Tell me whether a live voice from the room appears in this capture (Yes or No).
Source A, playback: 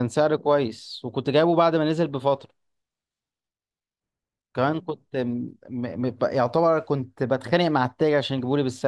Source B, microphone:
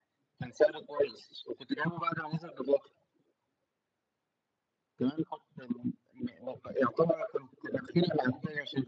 No